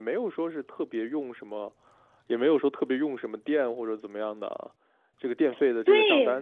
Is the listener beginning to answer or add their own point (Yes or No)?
No